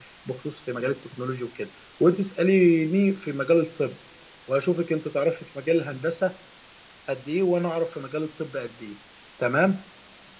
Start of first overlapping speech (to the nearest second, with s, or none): none